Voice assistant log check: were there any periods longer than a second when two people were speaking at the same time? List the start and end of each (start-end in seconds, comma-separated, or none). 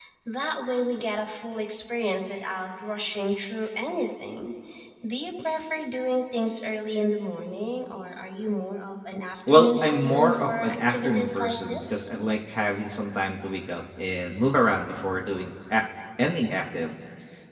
9.5-12.1